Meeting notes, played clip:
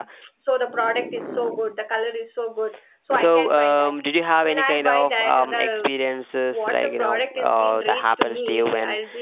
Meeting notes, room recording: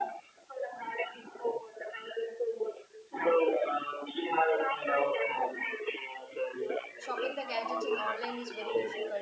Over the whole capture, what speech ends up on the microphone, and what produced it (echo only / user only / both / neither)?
both